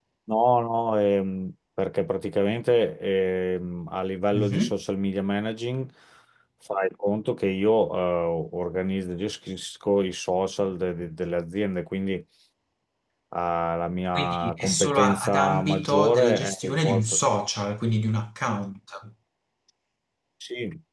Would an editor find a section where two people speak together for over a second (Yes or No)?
Yes